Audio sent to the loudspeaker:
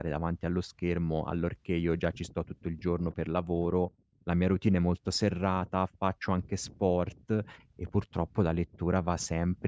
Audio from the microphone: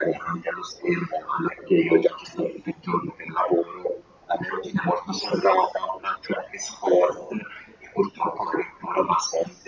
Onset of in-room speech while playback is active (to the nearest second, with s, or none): none